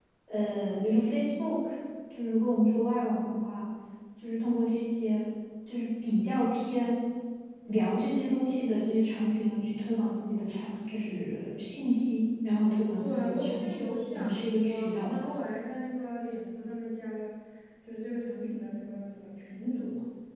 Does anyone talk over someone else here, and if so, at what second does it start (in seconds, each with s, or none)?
13.0 s